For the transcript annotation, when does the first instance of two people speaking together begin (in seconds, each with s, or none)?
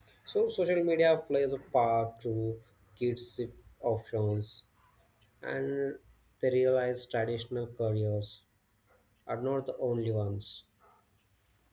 none